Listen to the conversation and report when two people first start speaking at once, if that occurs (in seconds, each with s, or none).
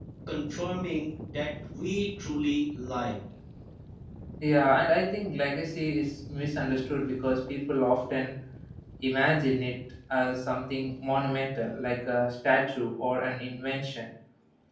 none